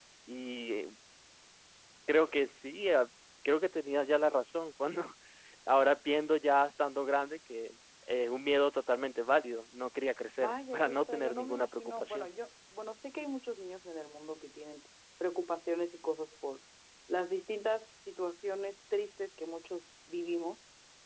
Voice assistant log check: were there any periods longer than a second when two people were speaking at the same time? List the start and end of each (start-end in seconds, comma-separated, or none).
10.4-12.3